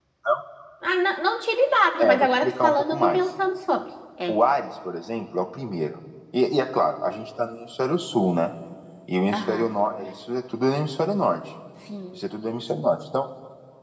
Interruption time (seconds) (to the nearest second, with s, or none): 2 s